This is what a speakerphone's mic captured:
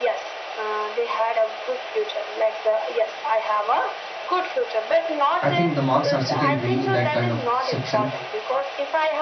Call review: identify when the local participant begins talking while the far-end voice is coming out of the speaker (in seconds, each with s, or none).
5.4 s